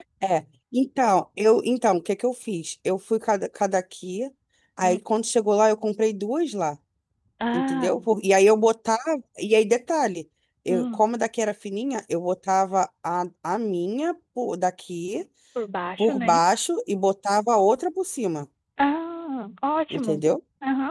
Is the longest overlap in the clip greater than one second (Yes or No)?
No